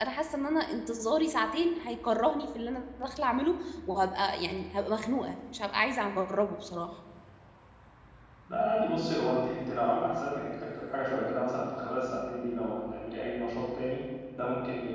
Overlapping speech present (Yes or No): No